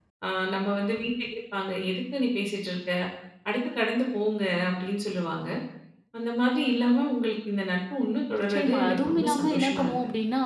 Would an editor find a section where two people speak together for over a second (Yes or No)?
Yes